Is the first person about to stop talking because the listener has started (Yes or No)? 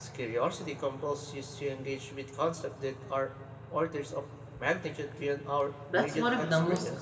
Yes